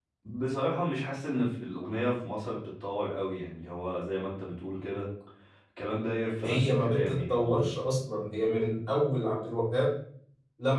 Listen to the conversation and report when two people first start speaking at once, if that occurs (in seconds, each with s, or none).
6.4 s